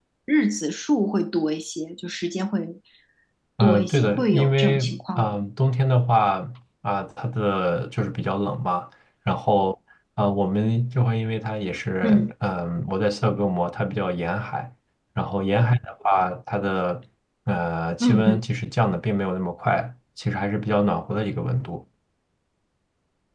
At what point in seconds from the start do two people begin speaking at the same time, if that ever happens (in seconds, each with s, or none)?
3.6 s